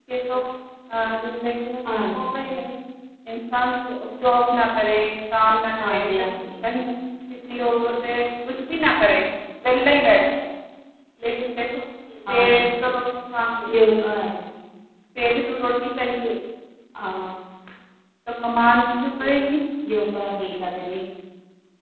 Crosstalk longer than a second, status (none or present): none